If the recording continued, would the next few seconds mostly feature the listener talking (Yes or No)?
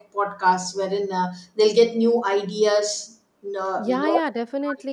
Yes